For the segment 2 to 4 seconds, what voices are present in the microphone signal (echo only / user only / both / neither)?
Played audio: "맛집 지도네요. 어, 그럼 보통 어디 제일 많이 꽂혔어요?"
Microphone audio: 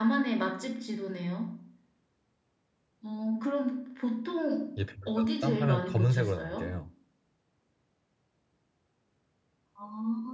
echo only